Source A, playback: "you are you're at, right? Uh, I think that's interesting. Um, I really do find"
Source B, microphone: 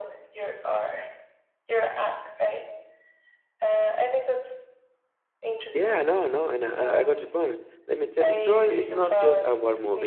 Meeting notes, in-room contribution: present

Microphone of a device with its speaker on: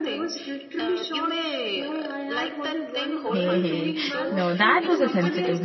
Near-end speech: present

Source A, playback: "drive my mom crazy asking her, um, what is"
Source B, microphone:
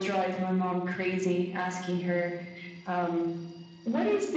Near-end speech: none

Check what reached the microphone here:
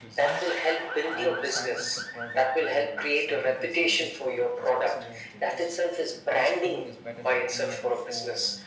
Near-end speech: present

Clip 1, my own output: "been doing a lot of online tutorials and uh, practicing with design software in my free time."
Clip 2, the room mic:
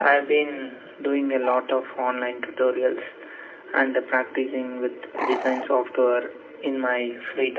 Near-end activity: none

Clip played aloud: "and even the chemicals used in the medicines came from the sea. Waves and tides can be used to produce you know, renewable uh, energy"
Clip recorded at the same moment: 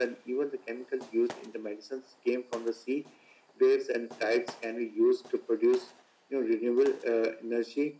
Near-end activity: none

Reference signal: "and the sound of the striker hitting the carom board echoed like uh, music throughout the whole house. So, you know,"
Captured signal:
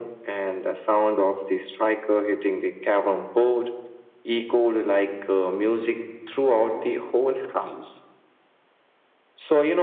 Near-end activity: none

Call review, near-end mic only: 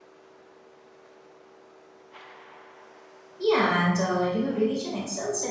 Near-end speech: present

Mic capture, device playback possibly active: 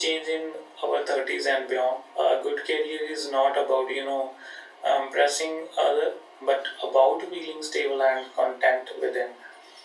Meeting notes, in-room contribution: none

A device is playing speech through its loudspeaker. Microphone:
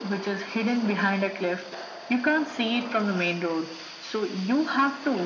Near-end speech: none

